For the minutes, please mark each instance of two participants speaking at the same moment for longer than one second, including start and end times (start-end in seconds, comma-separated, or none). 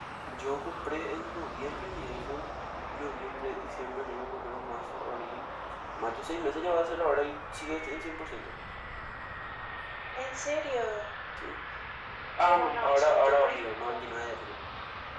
12.4-14.0